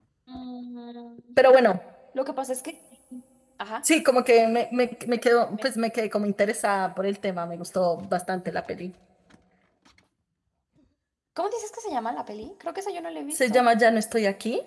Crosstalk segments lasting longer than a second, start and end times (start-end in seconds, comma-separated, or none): none